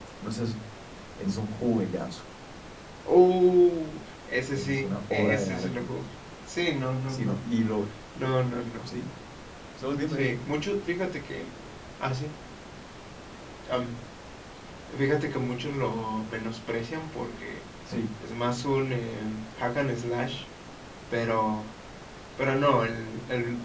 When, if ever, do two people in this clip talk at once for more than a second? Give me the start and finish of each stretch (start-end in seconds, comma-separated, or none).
4.5-5.9